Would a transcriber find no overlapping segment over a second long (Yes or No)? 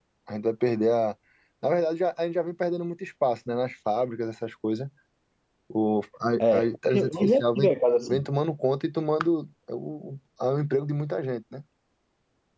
No